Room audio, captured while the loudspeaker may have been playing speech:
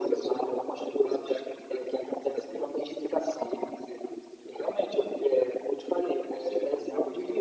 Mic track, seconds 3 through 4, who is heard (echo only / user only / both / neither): echo only